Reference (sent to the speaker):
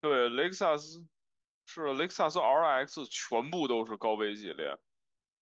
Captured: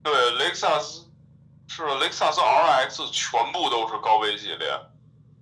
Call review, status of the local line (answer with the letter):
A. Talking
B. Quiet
B